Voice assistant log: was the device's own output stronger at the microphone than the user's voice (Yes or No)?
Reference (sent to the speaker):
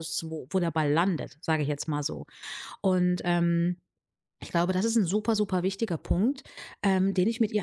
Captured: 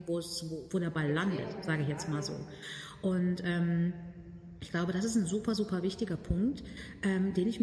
Yes